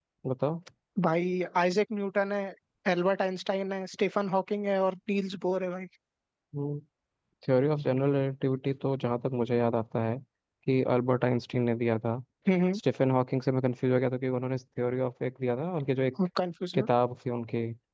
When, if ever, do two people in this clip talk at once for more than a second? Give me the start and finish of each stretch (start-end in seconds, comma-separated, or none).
none